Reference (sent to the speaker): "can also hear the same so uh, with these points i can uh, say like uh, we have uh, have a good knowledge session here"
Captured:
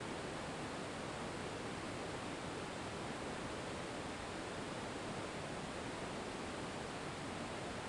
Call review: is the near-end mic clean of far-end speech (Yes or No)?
Yes